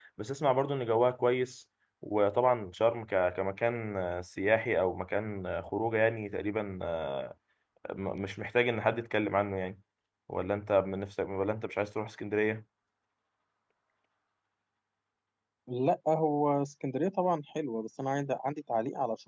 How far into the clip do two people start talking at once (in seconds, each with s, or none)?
none